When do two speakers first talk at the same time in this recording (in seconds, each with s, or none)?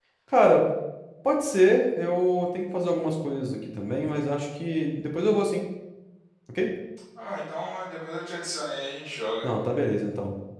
none